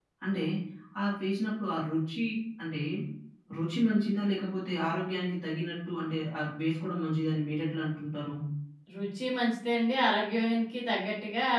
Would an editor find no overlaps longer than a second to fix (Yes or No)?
Yes